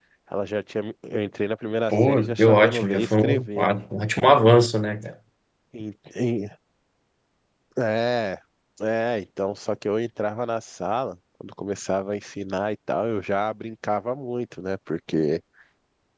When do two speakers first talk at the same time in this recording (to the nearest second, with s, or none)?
2 s